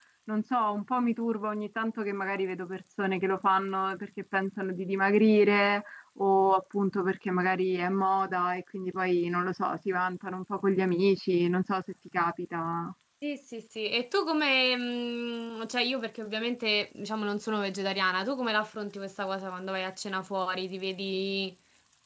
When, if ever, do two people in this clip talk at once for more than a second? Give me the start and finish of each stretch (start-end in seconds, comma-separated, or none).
none